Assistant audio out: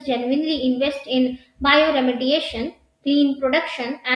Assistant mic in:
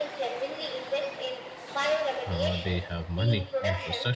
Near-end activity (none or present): present